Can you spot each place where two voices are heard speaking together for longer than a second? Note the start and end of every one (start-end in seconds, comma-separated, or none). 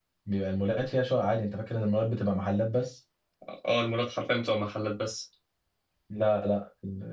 none